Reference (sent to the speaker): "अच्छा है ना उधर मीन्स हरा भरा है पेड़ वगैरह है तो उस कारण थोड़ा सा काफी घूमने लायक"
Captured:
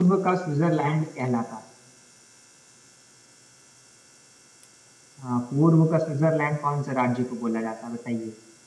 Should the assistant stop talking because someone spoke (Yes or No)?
Yes